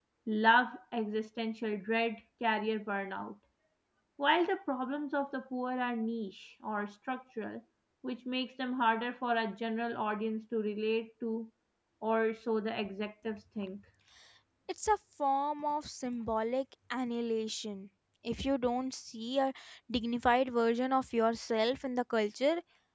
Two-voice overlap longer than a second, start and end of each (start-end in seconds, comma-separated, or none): none